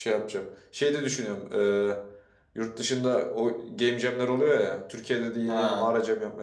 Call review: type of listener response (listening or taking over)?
listening